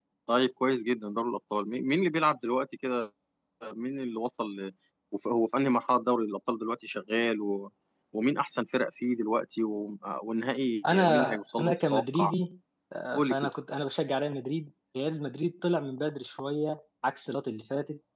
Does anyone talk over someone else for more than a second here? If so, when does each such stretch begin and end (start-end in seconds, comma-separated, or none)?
10.9-12.3